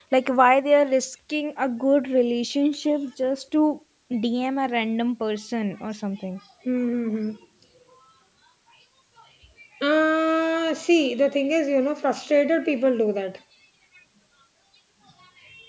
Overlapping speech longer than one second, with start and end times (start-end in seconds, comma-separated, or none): none